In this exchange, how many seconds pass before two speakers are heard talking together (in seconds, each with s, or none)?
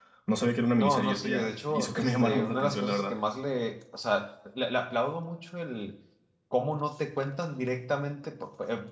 0.8 s